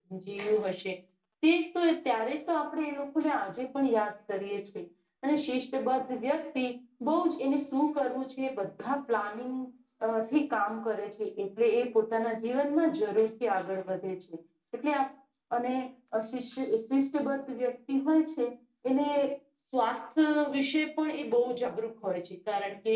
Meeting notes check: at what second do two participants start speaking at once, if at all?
none

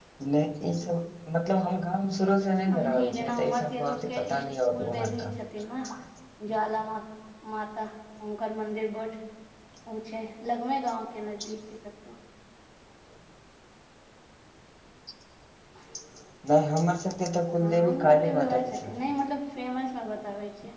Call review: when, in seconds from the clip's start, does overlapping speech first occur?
2.7 s

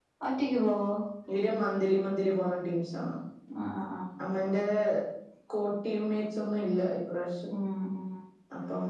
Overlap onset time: none

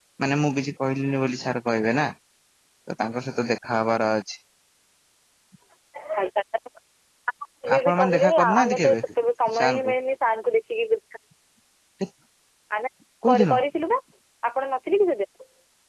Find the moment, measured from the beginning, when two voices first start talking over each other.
7.8 s

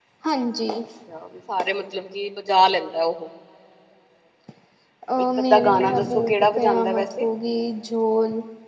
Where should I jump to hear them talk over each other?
5.2 s

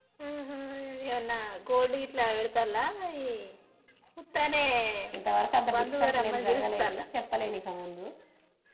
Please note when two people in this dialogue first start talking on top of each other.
5.8 s

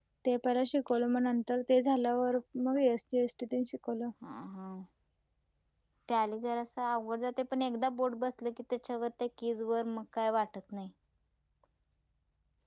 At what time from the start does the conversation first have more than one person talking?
none

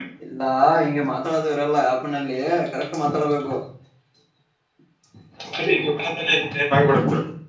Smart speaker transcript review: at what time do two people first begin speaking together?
none

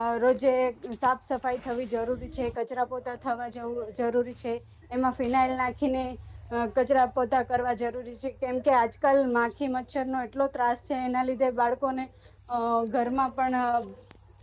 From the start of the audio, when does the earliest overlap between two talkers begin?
none

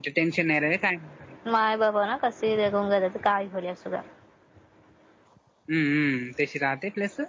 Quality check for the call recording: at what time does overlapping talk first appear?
none

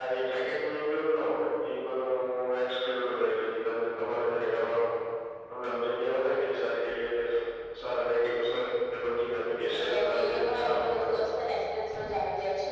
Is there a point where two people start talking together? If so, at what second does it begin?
9.7 s

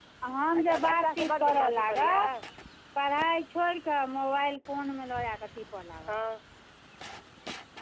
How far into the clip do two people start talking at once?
0.6 s

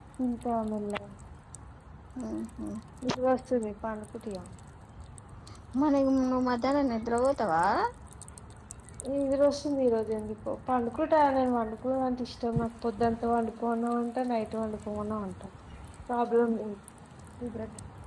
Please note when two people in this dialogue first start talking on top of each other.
none

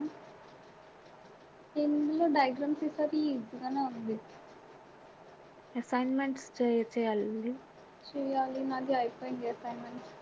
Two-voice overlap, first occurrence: none

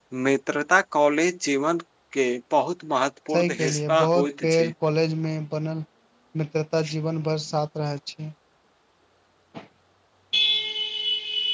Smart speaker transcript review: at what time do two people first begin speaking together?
3.3 s

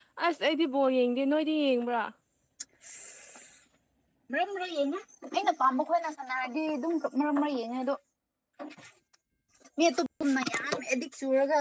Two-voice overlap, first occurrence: none

